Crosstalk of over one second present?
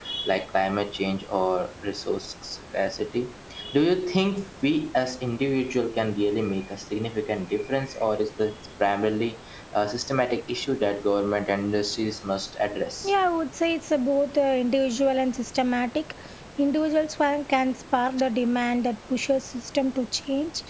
No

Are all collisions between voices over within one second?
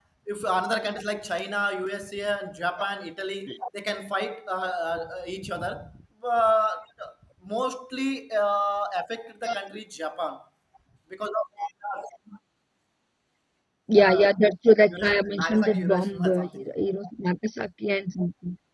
No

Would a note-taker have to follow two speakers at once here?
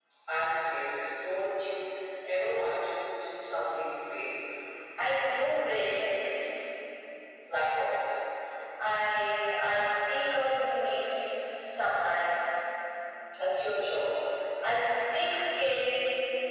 No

